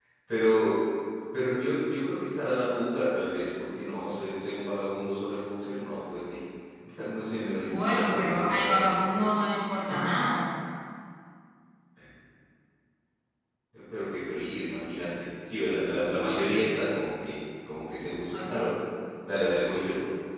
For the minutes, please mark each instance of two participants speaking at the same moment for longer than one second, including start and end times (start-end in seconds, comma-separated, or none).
7.7-9.3